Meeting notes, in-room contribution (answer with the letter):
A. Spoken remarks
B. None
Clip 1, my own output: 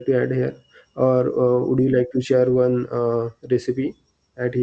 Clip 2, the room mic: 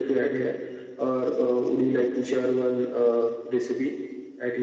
B